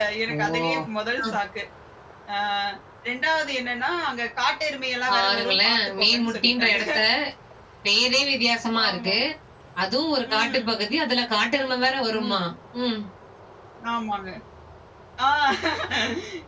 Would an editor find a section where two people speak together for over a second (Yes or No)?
Yes